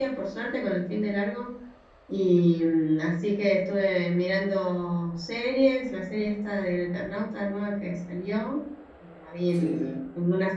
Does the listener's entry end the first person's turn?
No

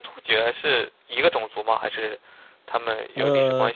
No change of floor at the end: No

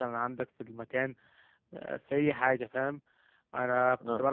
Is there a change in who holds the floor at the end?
No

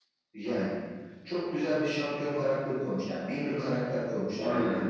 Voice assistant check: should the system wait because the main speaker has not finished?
Yes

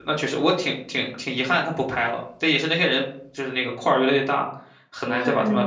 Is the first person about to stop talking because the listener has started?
Yes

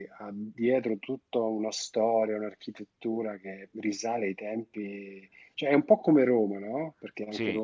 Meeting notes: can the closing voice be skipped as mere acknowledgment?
Yes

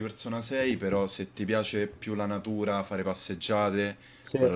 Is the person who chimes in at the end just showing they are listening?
Yes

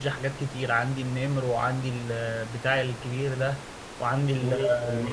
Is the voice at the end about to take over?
Yes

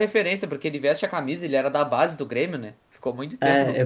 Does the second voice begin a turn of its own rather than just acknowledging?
Yes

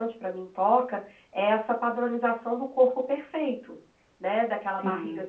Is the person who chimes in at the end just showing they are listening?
Yes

